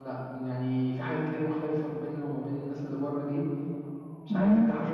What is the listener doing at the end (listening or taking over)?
taking over